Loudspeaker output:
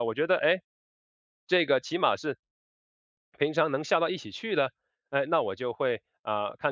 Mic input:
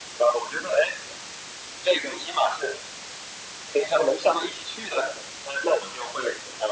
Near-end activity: none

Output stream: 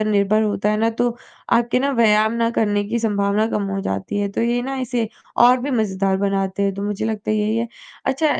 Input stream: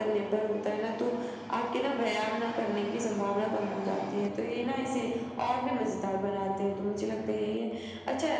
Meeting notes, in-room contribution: none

